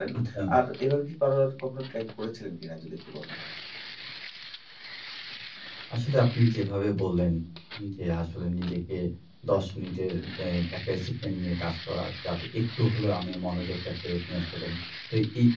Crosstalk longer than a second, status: none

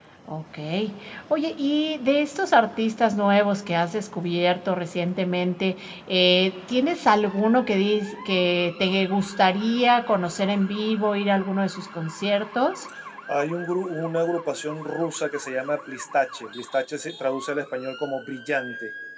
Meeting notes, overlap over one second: none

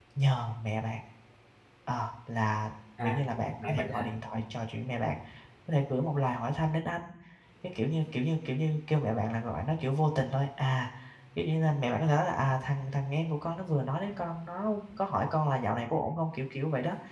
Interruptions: present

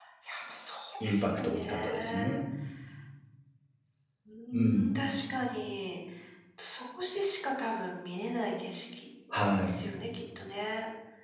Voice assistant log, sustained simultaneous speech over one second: present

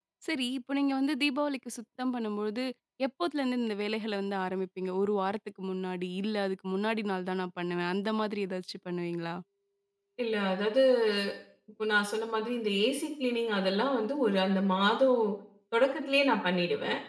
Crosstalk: none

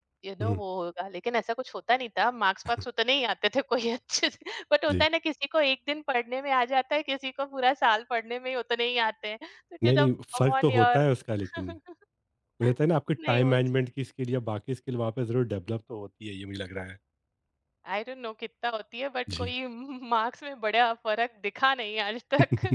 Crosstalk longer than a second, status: present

